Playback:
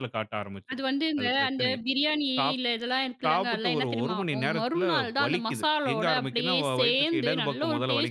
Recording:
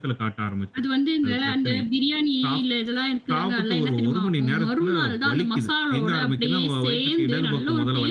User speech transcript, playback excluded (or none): none